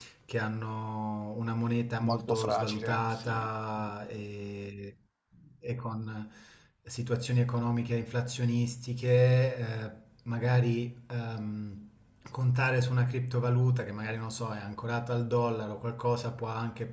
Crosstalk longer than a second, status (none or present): present